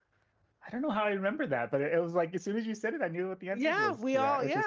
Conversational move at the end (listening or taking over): taking over